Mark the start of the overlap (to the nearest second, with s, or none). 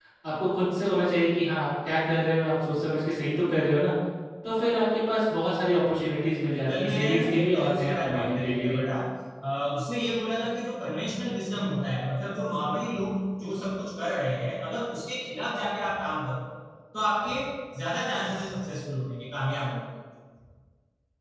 7 s